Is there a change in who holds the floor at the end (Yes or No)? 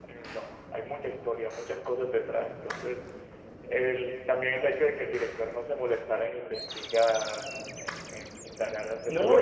Yes